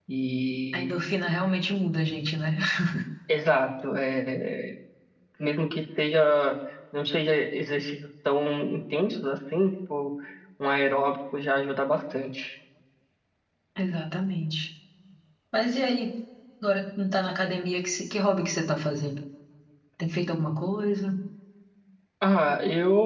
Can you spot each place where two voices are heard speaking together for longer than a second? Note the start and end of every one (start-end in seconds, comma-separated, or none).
none